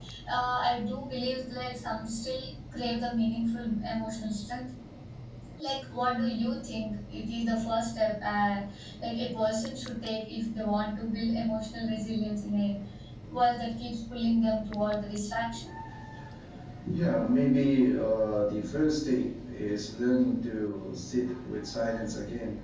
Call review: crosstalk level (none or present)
none